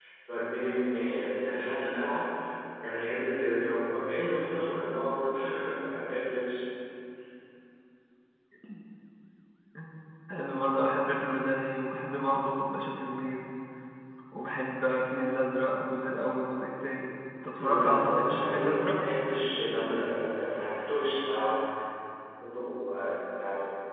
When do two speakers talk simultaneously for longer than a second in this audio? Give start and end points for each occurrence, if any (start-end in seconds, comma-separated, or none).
17.6-19.0